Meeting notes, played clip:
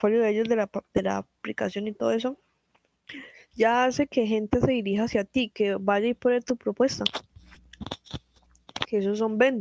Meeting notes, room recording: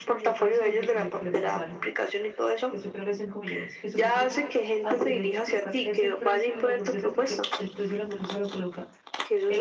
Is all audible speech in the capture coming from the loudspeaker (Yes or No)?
No